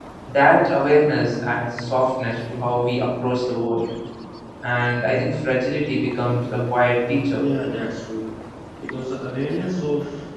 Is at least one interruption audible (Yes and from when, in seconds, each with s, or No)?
No